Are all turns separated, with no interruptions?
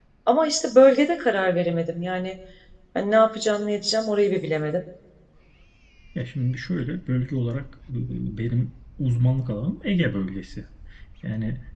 Yes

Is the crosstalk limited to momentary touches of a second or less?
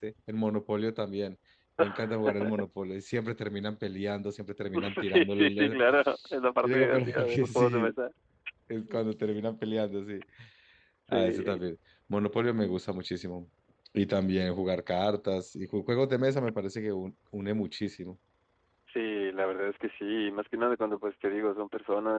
No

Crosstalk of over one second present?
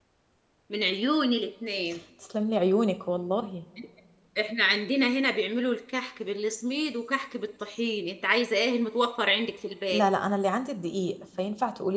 No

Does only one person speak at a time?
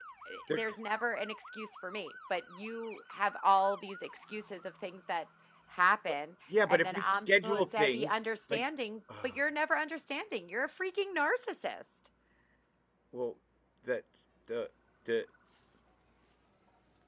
No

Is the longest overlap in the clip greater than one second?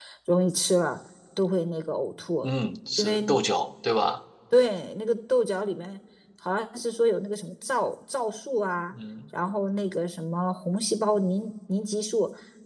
No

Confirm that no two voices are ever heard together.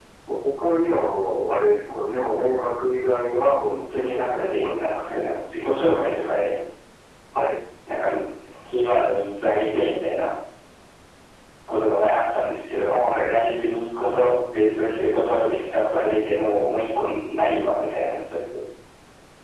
No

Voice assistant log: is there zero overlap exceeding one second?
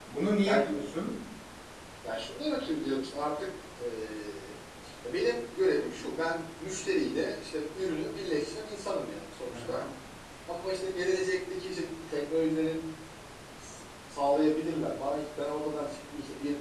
Yes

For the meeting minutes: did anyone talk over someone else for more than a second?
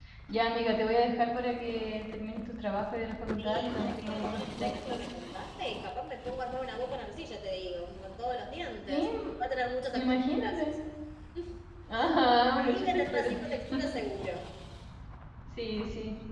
Yes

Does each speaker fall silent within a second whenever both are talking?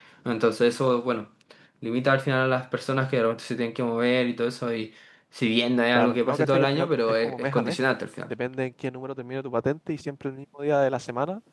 No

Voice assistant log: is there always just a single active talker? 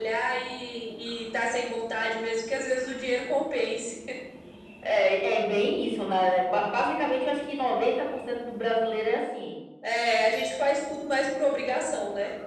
Yes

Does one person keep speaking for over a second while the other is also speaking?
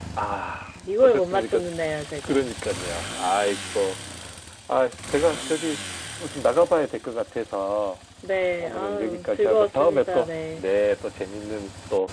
Yes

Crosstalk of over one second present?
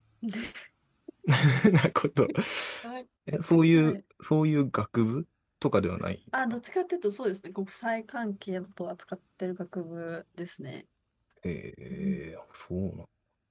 No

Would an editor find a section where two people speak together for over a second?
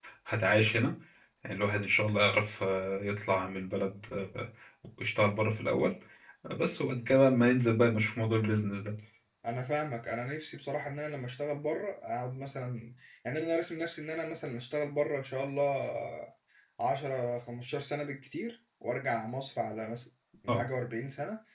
No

